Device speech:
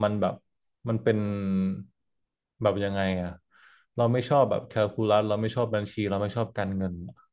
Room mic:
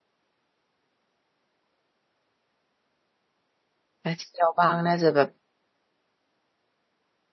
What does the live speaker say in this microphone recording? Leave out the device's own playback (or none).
ถ้าเที่ยวบ้างน่าจะแบบ